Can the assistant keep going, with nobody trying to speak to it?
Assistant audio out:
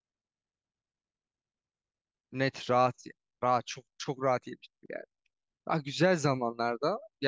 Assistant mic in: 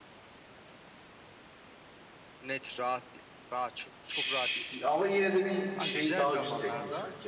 No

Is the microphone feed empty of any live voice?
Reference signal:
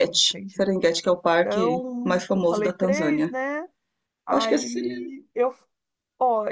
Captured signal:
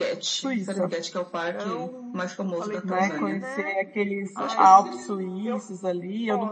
No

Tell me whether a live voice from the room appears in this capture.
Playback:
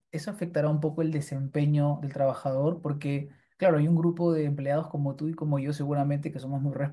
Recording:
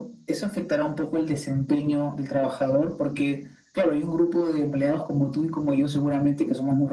No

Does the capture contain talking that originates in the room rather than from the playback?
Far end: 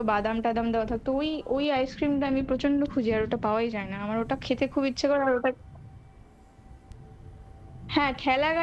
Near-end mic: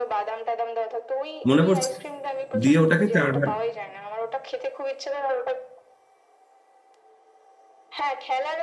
Yes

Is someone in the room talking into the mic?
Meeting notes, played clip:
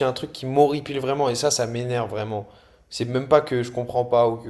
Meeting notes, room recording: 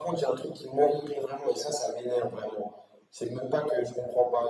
No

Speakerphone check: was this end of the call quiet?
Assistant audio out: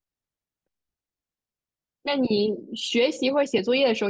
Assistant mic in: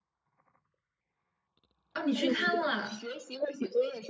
No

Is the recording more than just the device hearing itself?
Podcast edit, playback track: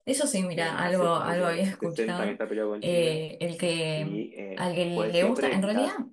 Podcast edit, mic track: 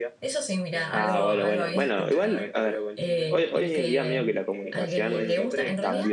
Yes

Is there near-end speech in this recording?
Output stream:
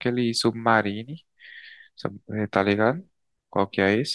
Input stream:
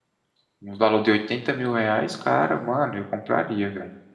Yes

